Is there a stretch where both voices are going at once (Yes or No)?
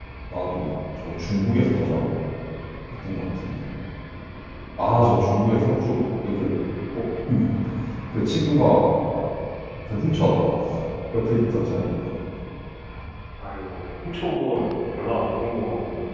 No